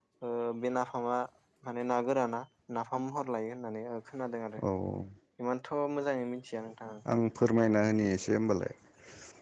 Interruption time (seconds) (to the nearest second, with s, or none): none